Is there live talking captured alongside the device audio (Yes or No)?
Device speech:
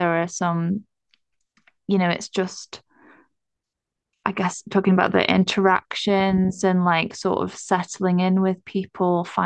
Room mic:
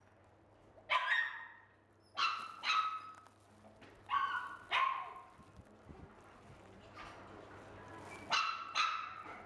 No